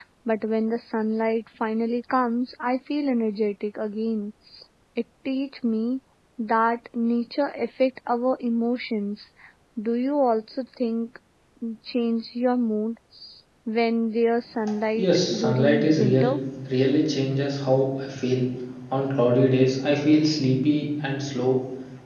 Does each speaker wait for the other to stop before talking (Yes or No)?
No